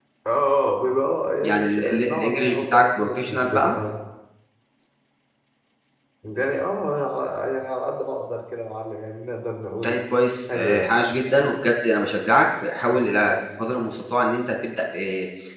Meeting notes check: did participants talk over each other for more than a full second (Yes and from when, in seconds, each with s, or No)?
Yes, from 1.5 s